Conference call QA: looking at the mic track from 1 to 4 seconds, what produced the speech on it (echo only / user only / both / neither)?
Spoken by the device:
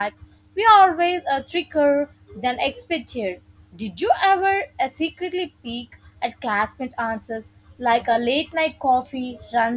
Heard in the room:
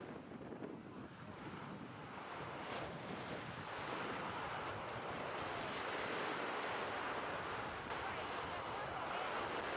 neither